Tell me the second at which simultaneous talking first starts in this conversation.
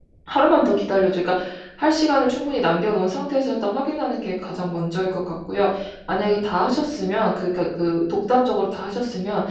none

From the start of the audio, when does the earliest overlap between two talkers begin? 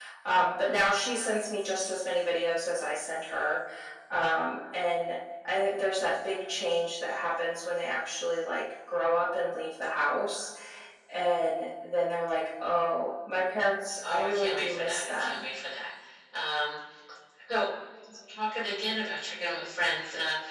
14.0 s

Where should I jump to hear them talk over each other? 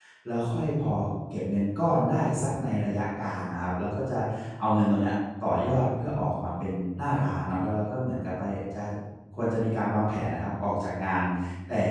none

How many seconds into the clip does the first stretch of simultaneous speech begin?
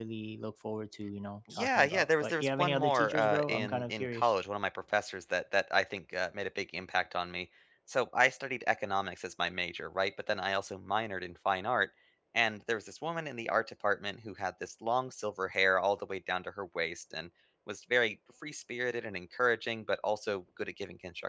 1.5 s

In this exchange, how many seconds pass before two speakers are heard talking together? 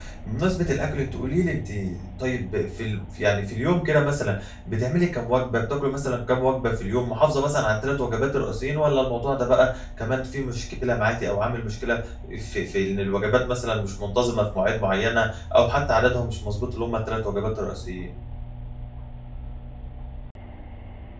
none

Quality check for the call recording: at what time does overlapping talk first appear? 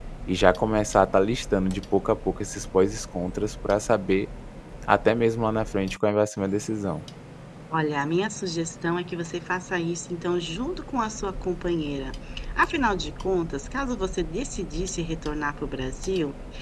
none

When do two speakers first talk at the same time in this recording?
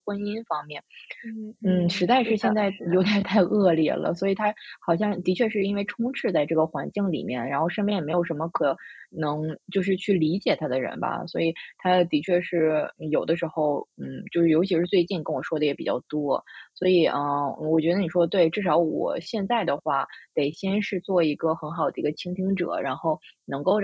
1.6 s

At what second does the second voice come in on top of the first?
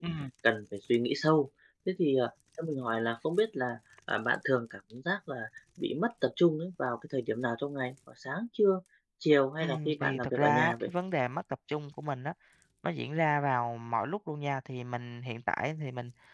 9.6 s

